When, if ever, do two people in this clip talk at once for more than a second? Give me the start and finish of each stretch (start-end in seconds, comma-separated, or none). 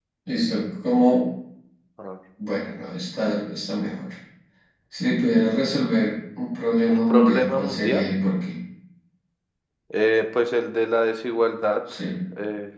6.9-8.1